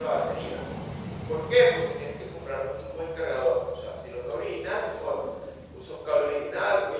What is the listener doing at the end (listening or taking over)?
taking over